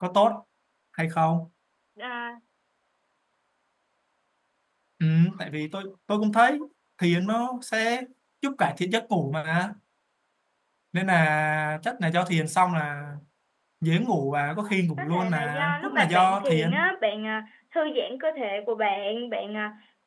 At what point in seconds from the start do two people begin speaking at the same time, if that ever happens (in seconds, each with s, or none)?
15.0 s